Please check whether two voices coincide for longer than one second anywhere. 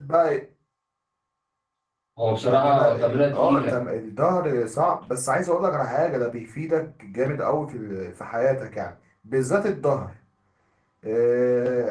Yes, from 2.5 s

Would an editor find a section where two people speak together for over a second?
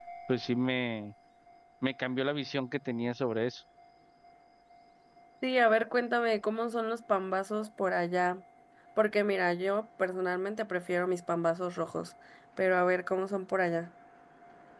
No

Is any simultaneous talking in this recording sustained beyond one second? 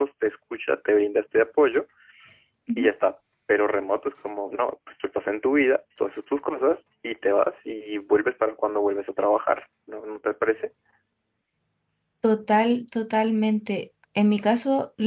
No

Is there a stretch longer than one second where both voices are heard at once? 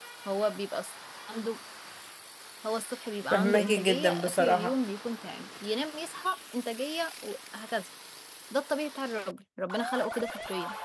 Yes, from 3.3 s

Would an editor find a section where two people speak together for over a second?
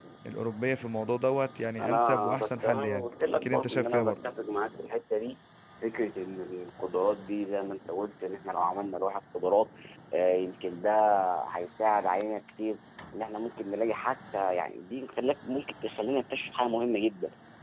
Yes, from 1.8 s

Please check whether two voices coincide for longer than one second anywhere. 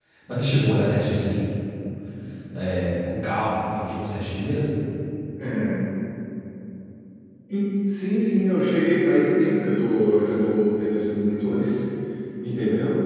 No

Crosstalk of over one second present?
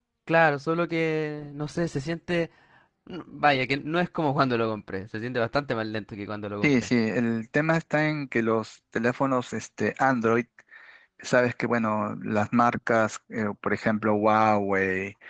No

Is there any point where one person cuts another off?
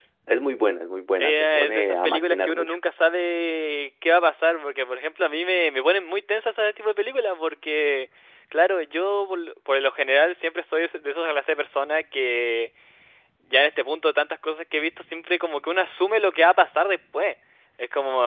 Yes, from 1.2 s

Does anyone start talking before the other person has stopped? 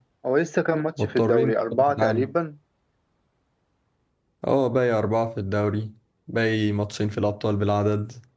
Yes, from 1.0 s

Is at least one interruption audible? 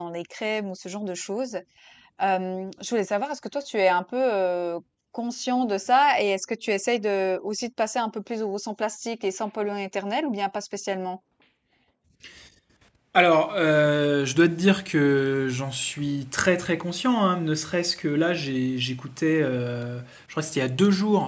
No

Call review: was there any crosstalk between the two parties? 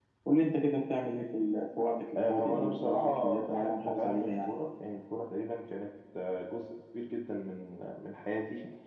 Yes, from 2.2 s

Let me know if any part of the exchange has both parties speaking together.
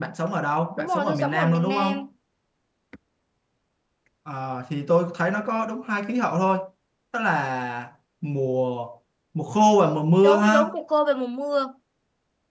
Yes, from 0.8 s

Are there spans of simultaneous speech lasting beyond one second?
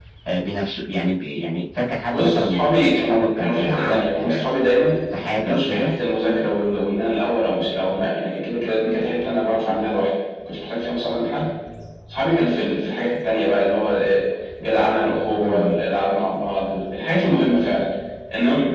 Yes, from 2.1 s

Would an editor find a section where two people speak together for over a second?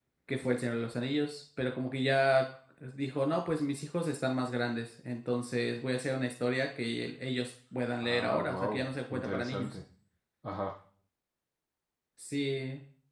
Yes, from 8.0 s

